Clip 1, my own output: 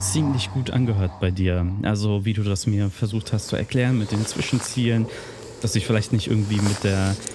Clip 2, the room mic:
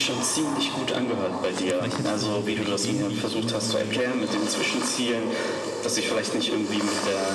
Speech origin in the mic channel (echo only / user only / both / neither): both